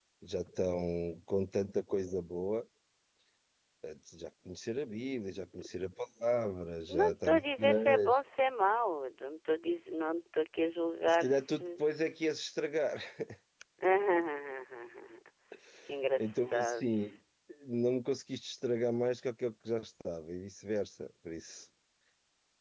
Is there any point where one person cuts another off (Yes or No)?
Yes